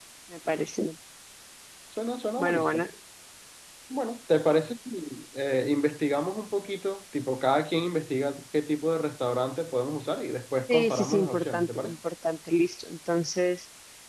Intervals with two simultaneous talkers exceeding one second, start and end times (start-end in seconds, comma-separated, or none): 10.7-12.0